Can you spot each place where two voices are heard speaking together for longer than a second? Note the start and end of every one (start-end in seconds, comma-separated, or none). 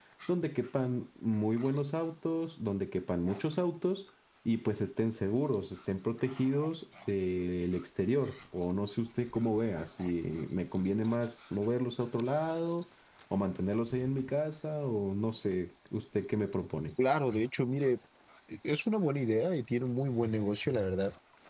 none